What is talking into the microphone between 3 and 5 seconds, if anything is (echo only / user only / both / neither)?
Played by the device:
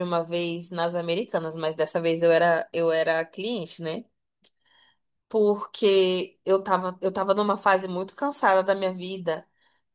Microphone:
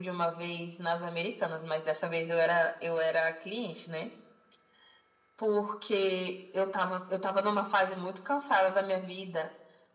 echo only